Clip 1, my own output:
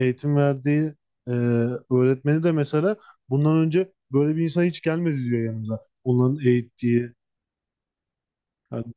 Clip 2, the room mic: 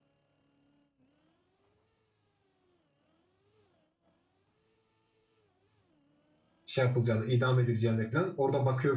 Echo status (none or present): none